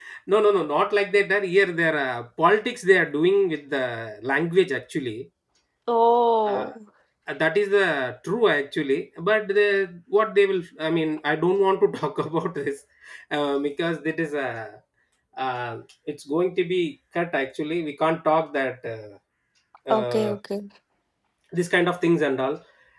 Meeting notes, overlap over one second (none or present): none